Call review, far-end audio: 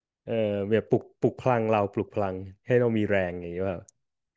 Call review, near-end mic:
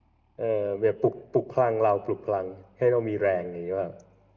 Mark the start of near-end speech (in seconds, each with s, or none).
none